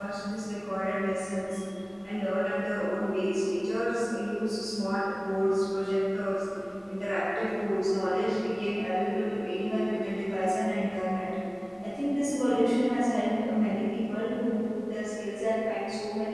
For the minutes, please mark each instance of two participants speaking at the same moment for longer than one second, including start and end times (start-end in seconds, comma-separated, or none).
none